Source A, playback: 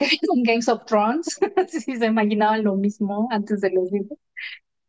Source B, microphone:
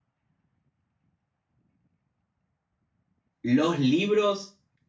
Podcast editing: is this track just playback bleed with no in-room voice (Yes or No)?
No